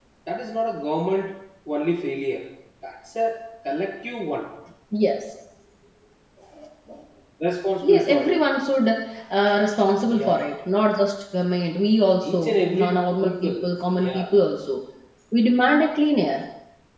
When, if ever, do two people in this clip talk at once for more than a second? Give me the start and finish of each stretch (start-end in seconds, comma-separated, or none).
12.3-13.5